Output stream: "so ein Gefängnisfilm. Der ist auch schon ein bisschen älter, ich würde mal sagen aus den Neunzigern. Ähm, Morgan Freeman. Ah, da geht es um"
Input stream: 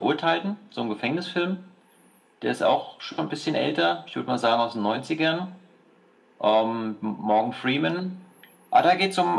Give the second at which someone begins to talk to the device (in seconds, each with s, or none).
none